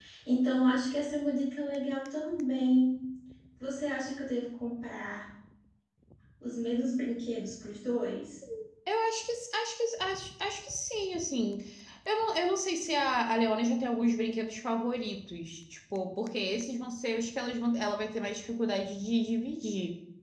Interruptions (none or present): none